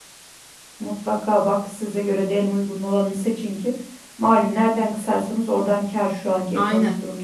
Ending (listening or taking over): taking over